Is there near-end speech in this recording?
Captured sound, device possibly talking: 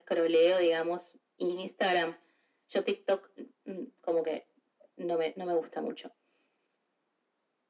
No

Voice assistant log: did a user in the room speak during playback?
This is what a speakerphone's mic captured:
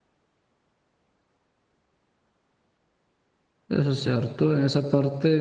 Yes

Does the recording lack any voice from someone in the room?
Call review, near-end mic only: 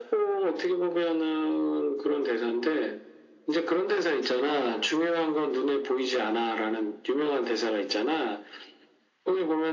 Yes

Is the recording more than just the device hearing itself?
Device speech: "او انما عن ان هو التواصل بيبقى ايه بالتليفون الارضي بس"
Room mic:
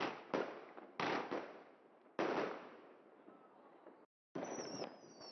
No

